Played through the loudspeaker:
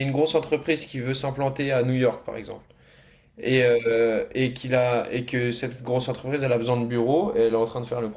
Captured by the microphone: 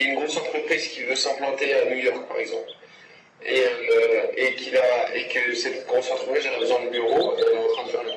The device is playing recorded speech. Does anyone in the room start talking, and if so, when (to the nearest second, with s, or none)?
none